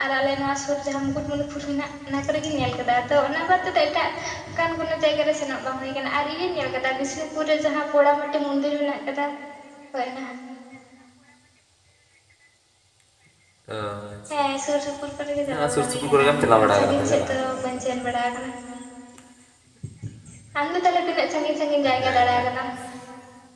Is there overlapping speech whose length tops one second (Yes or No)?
Yes